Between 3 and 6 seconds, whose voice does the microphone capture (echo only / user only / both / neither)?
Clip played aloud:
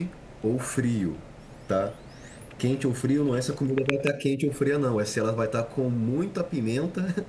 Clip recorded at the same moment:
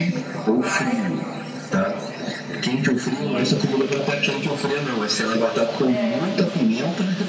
both